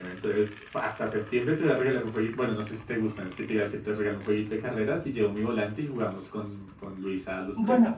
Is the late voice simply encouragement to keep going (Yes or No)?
No